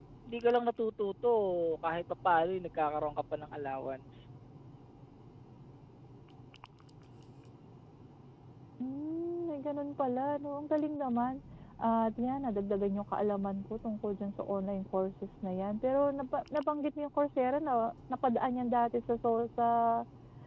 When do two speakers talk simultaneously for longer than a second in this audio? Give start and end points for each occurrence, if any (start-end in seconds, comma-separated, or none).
none